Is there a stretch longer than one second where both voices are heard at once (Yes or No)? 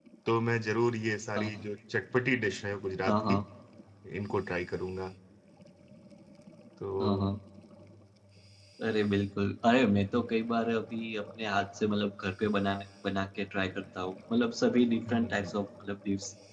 No